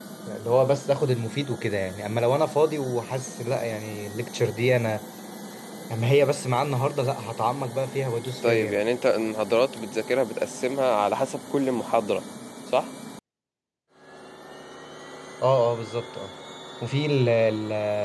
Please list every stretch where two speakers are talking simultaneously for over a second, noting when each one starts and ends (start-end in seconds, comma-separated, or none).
none